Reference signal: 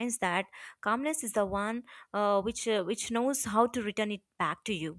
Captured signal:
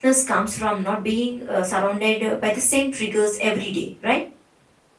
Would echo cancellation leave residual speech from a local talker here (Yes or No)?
Yes